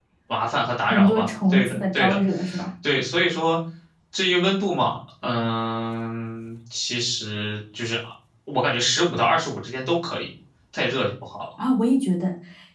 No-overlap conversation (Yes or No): No